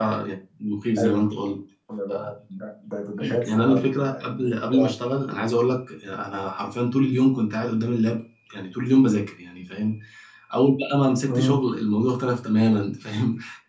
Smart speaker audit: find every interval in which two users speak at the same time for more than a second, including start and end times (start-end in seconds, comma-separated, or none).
3.5-4.7